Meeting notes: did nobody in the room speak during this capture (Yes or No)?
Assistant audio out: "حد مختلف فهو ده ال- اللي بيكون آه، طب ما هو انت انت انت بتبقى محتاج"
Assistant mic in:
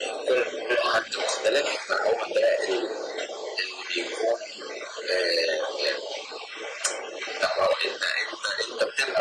Yes